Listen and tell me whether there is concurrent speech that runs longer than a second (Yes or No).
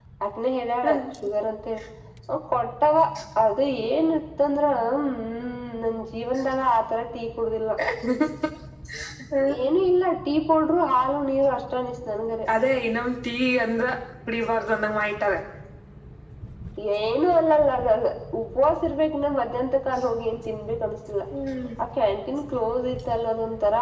No